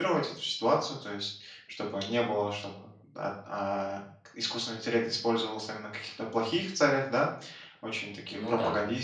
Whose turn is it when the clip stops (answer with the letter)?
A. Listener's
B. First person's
B